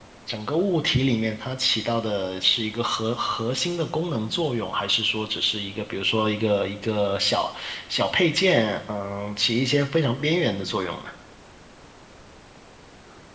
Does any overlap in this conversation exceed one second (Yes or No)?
No